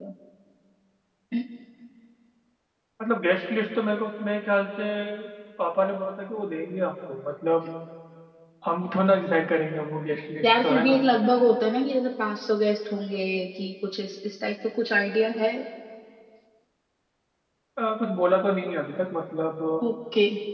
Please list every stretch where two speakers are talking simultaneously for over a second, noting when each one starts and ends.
none

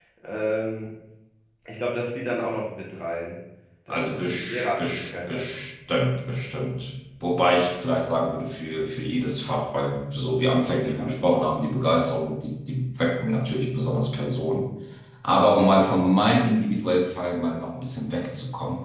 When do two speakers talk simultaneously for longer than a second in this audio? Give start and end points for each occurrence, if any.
3.9-5.5

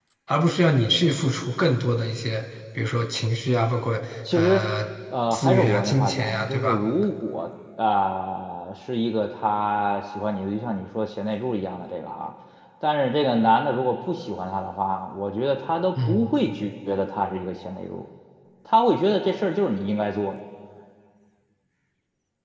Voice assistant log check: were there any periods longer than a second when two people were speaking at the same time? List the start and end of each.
5.3-6.8

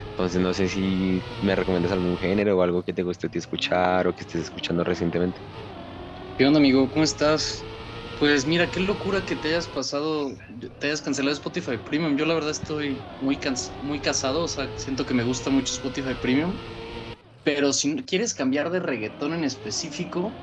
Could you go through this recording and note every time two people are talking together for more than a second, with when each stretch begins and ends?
none

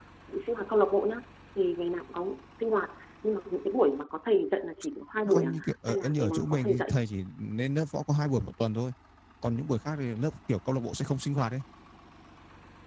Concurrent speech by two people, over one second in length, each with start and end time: 5.3-6.8

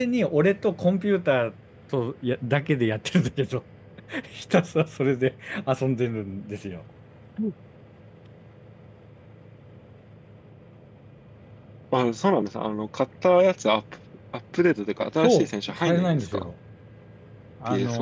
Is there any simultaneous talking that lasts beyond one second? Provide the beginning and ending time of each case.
15.2-16.5

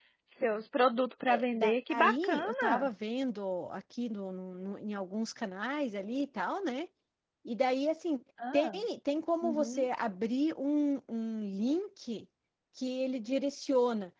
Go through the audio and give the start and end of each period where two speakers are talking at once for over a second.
1.3-2.9

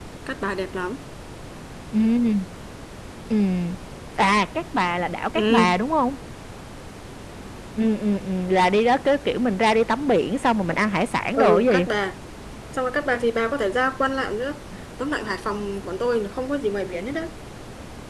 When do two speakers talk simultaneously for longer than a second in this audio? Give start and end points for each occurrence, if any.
none

